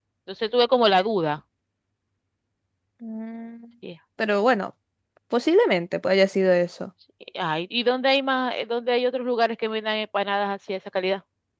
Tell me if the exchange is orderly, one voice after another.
Yes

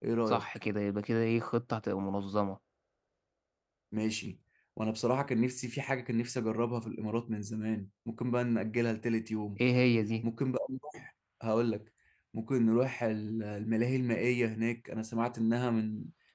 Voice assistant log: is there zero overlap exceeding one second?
Yes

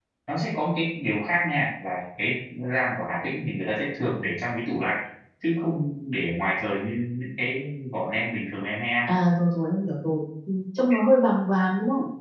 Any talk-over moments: No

